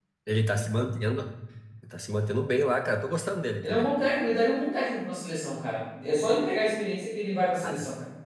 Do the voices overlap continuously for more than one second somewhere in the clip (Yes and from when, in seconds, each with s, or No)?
No